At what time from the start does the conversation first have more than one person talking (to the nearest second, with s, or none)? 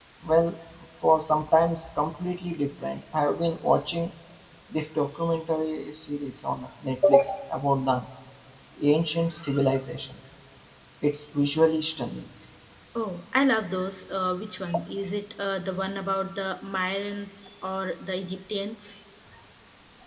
none